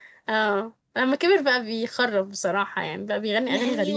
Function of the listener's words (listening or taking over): taking over